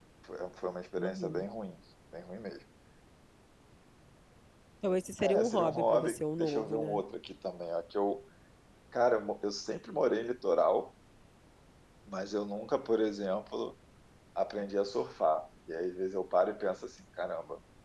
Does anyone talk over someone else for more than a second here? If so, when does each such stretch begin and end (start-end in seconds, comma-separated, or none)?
5.2-7.0